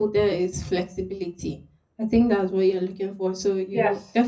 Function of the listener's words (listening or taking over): listening